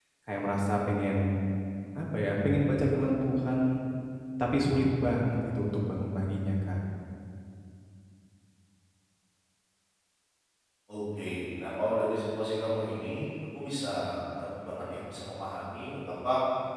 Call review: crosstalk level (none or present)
none